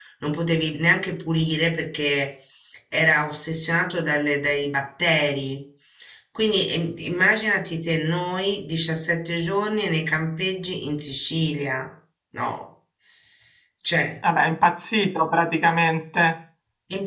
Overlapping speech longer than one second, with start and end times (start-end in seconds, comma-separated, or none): none